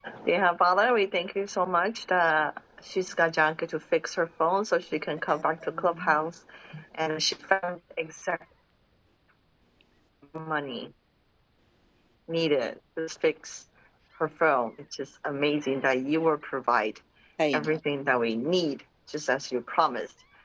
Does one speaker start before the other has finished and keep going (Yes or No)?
Yes